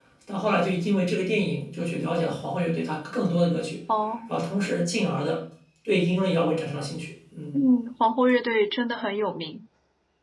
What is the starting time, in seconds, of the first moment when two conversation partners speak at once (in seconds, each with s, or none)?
none